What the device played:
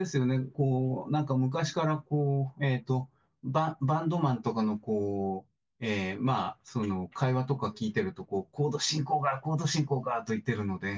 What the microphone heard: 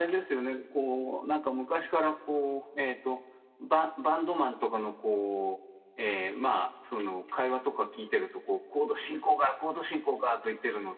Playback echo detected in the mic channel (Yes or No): Yes